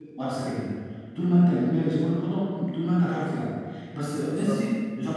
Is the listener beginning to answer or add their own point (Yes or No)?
No